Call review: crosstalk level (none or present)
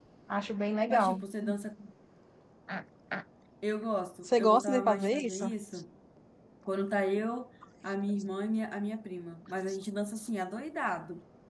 present